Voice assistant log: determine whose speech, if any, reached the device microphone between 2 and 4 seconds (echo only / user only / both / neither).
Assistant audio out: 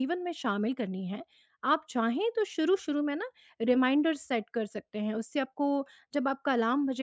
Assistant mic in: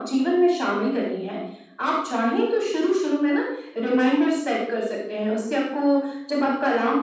echo only